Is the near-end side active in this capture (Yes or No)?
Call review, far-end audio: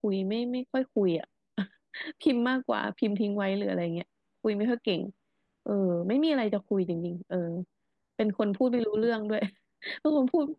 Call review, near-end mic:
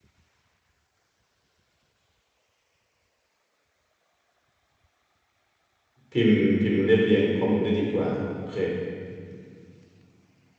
Yes